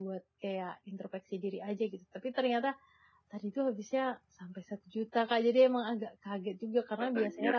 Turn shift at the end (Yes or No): No